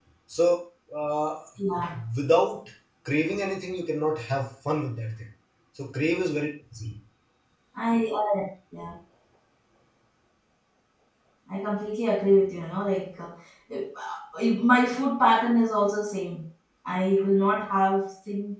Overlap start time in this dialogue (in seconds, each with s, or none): none